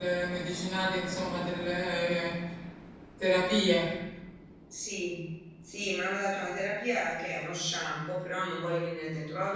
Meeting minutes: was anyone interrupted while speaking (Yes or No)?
No